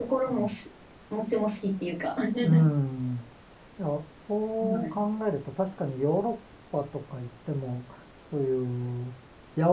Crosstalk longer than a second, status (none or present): none